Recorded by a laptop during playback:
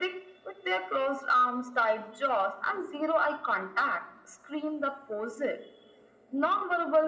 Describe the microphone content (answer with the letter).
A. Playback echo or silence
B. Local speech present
A